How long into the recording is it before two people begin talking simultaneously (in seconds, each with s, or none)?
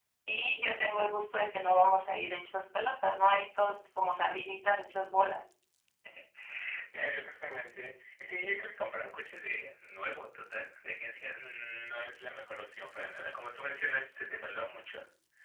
none